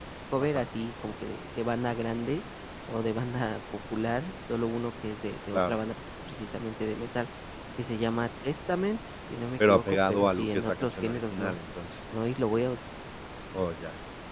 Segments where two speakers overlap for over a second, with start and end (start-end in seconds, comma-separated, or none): 9.7-11.6